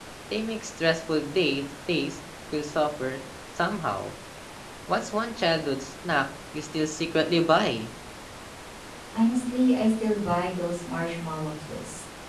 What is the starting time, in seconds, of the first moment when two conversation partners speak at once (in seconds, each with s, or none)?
none